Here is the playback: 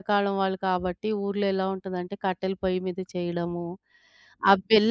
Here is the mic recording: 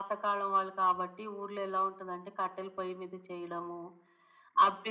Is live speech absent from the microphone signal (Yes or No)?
Yes